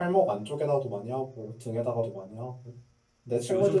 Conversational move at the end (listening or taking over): taking over